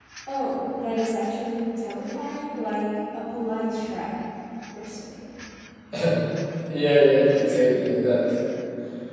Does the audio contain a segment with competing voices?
No

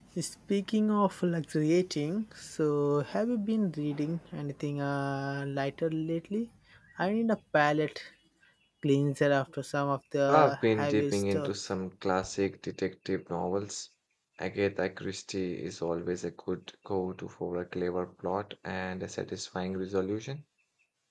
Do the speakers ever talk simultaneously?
Yes, from 10.3 s

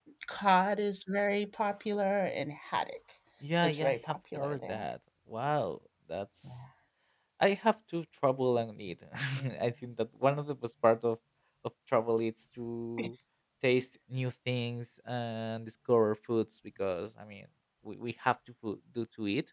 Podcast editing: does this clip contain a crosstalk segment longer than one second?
Yes, from 3.6 s

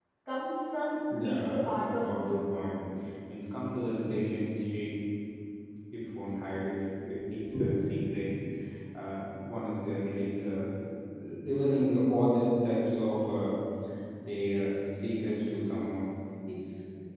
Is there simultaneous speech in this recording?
Yes, from 1.1 s

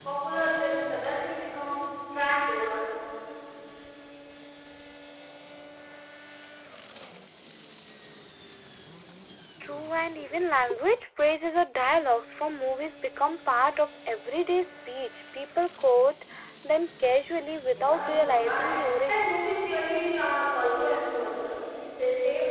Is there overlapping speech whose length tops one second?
Yes, from 17.7 s

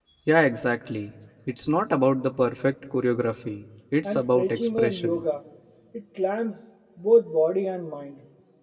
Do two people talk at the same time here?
Yes, from 4.0 s

